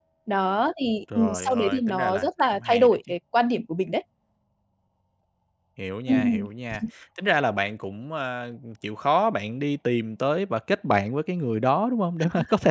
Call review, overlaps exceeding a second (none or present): present